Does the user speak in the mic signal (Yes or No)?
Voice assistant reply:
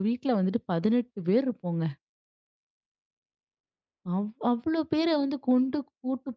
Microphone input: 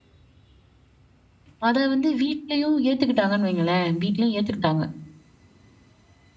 Yes